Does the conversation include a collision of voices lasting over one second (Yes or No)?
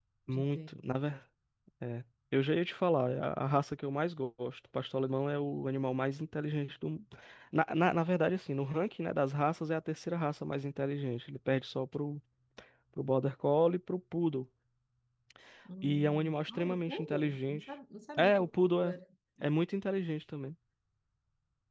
Yes